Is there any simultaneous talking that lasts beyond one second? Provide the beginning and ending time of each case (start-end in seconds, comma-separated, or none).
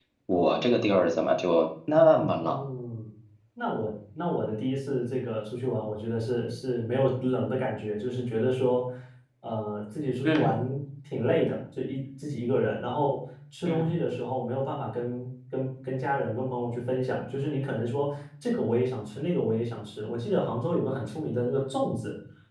none